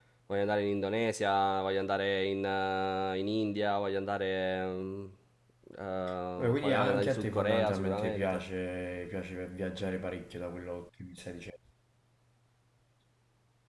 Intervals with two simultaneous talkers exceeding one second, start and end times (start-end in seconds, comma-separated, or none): 6.4-8.4